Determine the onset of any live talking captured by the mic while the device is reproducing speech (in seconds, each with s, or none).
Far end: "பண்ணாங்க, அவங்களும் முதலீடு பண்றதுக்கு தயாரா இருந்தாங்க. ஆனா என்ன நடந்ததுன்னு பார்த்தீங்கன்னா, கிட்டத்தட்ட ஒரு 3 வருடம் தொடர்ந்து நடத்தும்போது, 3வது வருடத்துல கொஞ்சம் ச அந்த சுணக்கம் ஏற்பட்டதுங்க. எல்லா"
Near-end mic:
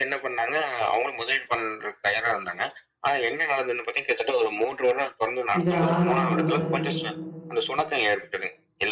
5.6 s